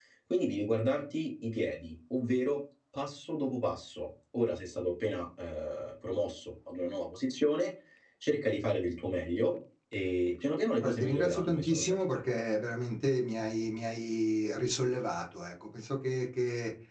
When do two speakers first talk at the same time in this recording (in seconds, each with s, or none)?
10.8 s